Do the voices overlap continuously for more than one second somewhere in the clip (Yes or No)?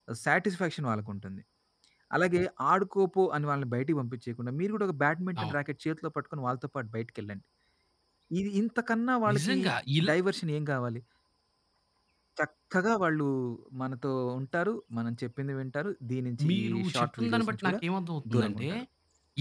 Yes